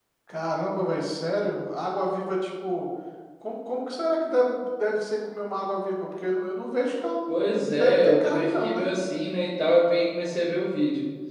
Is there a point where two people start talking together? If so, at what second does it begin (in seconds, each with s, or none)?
7.3 s